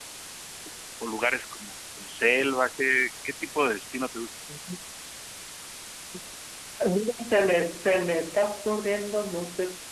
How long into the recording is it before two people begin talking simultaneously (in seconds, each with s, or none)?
none